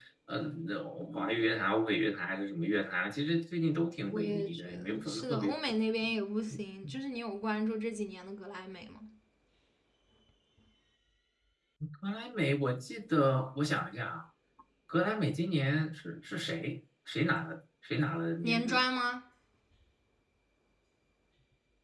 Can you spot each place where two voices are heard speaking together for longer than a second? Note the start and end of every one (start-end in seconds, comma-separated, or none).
4.1-5.5